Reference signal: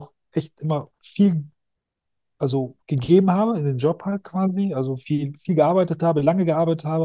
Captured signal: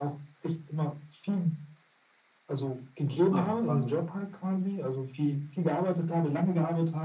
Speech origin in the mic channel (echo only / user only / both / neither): both